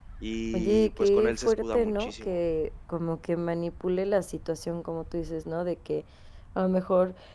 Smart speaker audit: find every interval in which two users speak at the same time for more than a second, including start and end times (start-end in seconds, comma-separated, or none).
0.5-2.4